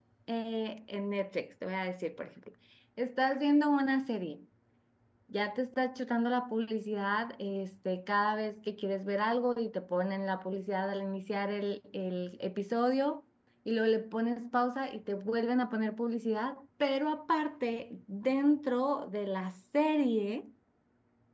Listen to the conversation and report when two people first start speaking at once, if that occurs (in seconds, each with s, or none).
none